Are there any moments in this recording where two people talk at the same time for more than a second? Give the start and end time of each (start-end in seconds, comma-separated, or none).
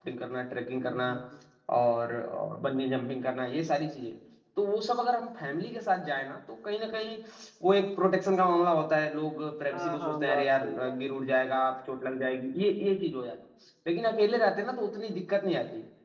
9.7-11.2